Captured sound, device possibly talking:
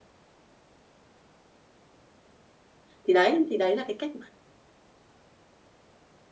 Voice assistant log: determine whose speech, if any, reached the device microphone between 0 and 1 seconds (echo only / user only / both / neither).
neither